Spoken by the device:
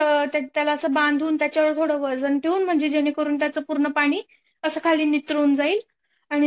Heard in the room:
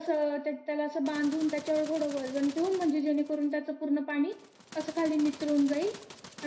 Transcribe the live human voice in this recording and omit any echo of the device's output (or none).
none